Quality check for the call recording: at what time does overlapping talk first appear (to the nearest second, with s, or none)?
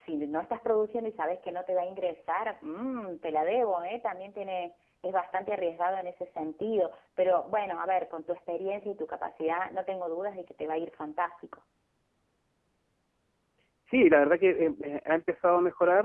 none